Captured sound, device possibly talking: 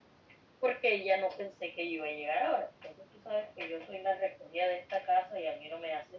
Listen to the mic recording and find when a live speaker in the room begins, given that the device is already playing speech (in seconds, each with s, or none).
none